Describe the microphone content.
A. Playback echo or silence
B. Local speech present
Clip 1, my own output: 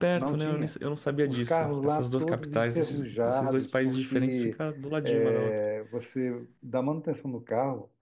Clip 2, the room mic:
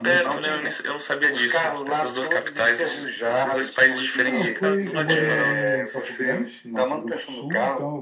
B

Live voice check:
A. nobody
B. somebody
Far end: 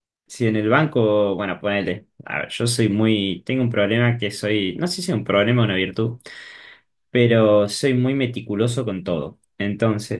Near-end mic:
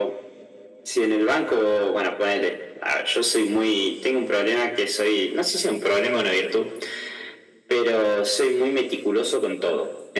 A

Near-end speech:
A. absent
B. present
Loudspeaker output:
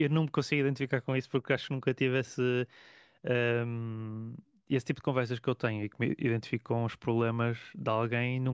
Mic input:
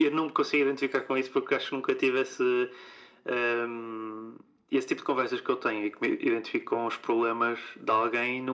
A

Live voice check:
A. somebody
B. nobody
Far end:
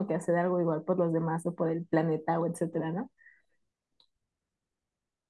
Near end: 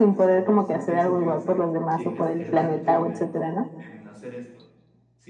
A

